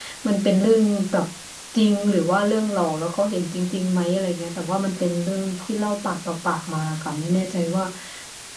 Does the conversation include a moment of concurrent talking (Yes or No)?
No